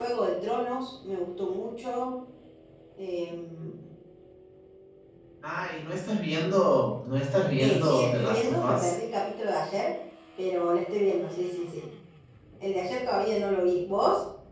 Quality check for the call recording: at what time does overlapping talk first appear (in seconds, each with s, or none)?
7.6 s